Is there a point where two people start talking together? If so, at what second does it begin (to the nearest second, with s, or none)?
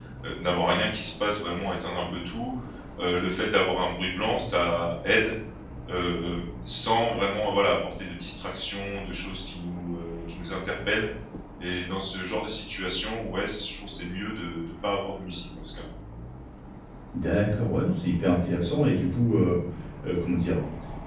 none